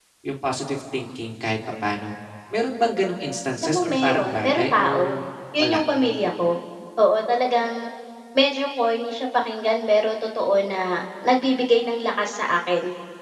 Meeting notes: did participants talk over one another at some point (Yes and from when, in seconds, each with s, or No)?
Yes, from 3.6 s